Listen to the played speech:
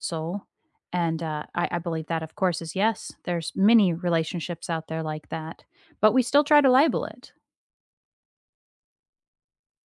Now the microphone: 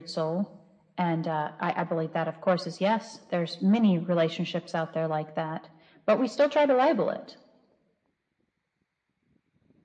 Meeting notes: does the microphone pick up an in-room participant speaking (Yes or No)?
No